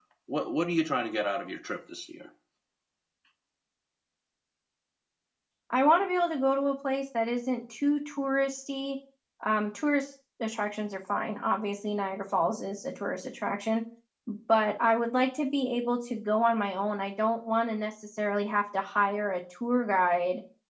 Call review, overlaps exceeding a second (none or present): none